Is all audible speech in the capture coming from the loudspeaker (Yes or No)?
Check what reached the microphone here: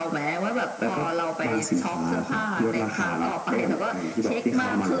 Yes